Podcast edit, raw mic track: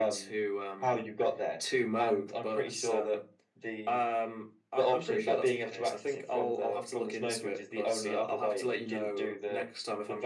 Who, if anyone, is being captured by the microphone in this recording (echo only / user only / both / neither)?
echo only